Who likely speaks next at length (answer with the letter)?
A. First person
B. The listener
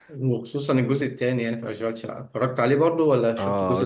B